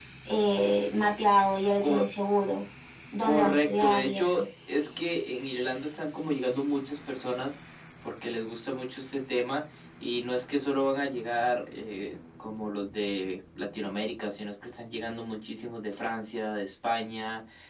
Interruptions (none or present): present